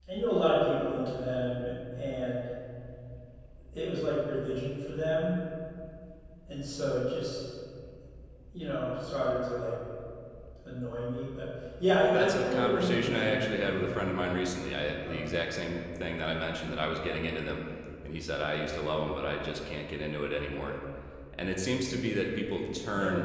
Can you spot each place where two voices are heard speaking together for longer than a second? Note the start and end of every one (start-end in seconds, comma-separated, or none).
12.1-14.1